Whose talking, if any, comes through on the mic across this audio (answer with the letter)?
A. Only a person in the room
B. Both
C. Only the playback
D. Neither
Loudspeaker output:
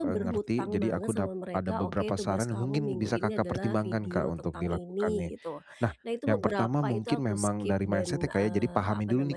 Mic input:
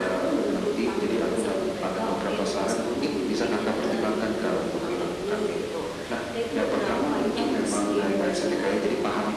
C